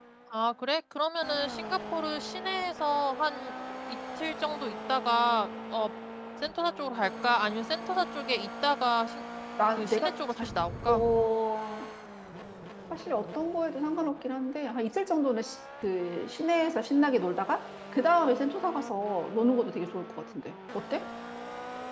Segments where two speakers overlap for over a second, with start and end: none

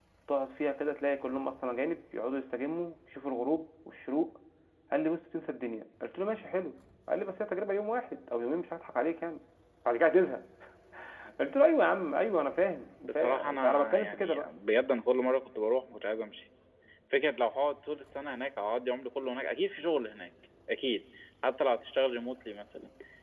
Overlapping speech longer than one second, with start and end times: 13.0-14.5

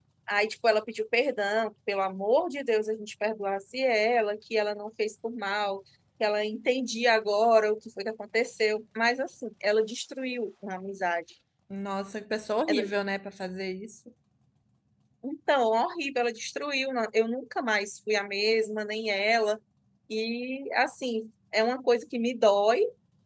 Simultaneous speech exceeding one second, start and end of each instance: none

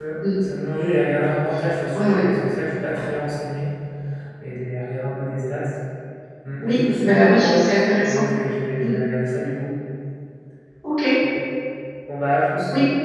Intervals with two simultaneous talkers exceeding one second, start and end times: 6.6-8.3

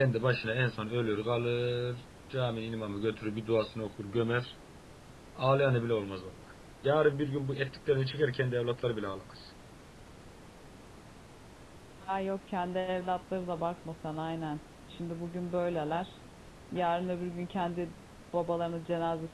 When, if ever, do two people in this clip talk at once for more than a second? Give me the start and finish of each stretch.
none

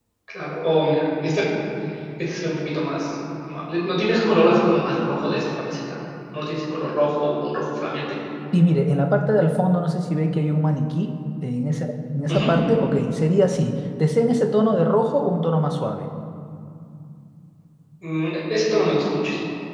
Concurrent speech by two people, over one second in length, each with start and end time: none

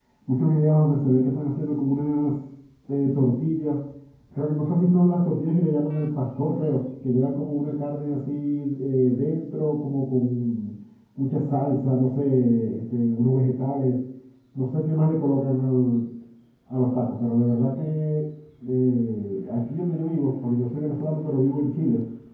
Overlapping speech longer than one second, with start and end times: none

